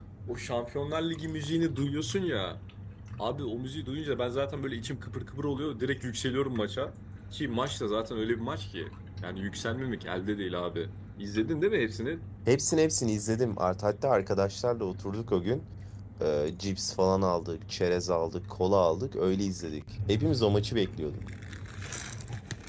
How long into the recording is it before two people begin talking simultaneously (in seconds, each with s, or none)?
none